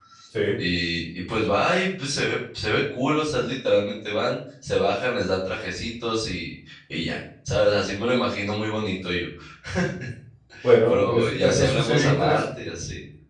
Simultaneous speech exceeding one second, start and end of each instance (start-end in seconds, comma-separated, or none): 10.9-12.4